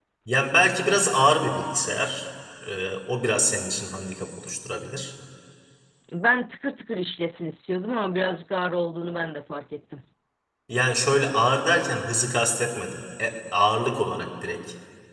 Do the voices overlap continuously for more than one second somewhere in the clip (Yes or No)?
No